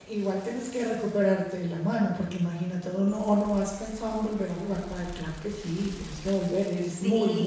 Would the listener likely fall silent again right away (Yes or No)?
No